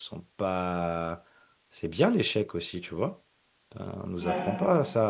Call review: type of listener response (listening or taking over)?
listening